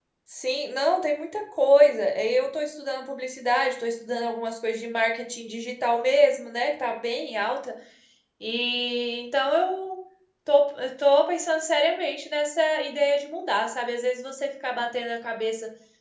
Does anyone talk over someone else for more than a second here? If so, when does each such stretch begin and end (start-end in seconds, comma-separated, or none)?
none